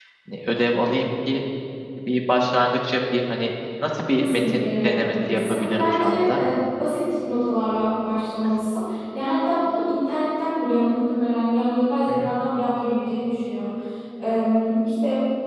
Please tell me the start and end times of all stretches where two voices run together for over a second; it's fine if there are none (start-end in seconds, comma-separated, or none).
4.1-6.4